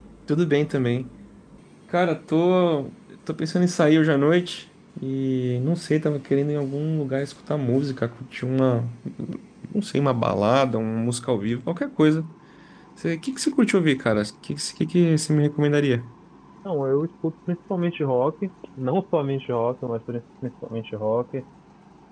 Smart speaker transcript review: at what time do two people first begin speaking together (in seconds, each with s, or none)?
none